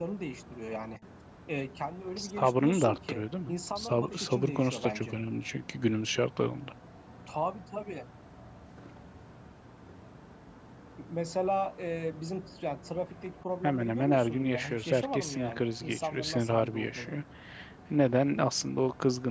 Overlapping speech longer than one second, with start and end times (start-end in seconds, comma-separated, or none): 2.2-5.2, 13.6-17.1